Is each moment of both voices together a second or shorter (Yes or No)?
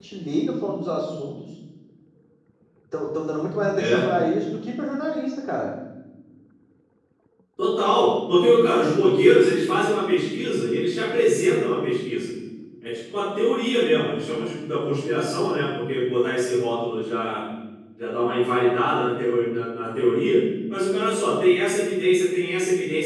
Yes